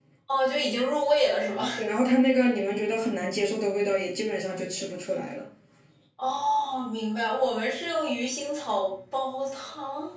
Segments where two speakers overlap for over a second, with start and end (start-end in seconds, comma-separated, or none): none